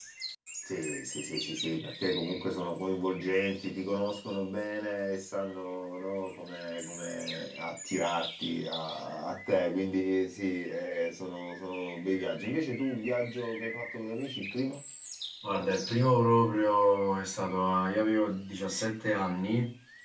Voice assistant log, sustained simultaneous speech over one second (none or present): none